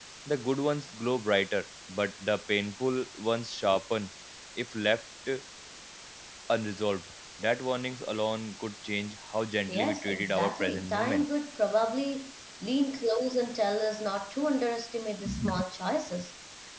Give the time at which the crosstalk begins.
9.7 s

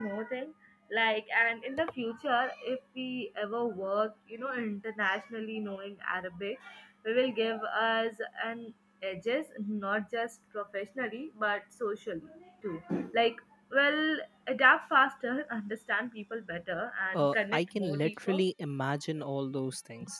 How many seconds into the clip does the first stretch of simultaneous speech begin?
17.1 s

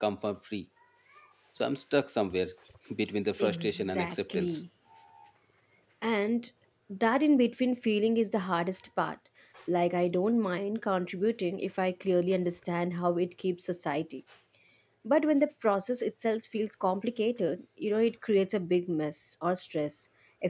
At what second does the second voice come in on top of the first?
3.4 s

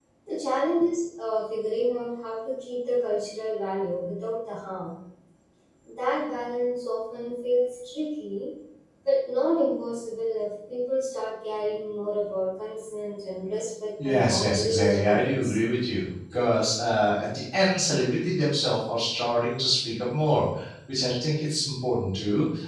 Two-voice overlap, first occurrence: 14.0 s

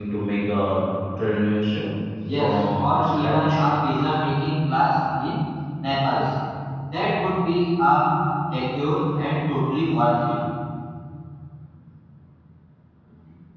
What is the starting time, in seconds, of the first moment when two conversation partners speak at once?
2.3 s

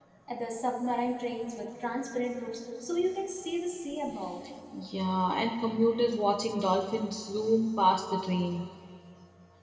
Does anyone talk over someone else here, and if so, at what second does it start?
none

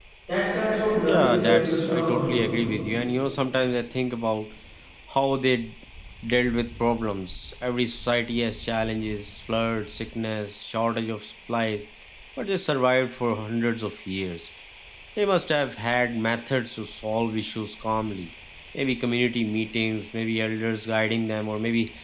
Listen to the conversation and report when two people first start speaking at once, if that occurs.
1.0 s

